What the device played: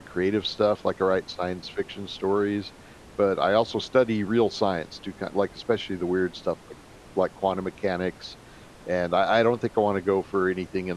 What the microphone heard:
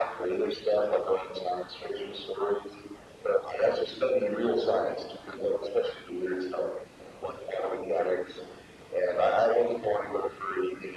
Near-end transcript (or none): none